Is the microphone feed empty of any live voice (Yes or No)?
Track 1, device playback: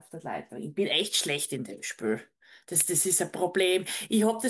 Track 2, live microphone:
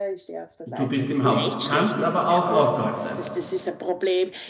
No